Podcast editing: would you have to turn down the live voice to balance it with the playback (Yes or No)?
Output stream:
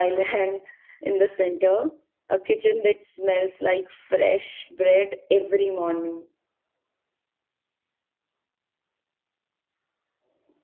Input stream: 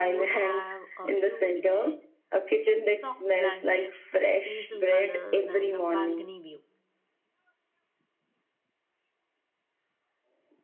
No